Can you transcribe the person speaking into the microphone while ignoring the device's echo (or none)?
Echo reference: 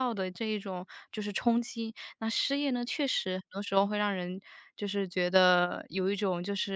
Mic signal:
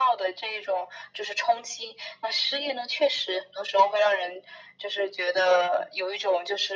none